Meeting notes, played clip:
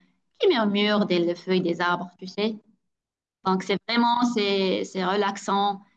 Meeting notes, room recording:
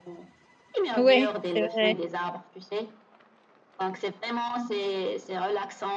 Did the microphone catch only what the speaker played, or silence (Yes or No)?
No